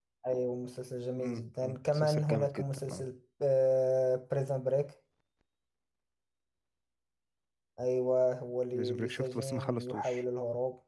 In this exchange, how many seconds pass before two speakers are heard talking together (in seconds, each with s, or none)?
1.2 s